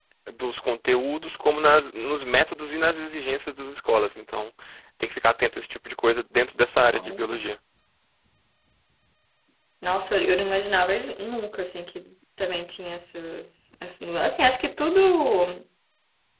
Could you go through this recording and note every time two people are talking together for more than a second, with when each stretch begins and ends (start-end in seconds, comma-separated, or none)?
none